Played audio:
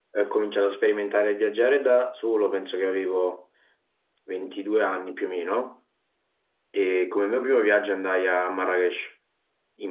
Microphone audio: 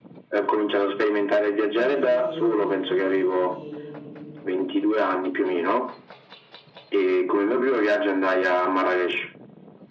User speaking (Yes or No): Yes